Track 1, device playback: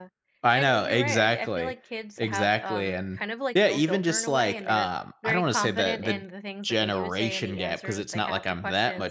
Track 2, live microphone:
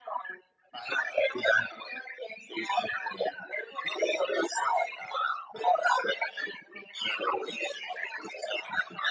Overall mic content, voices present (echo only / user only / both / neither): echo only